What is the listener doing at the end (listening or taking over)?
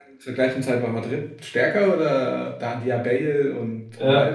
taking over